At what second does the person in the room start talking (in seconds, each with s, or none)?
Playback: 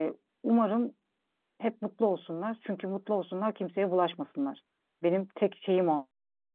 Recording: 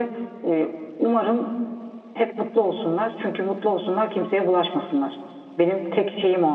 none